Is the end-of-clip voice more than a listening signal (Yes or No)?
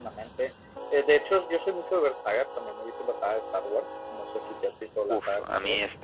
Yes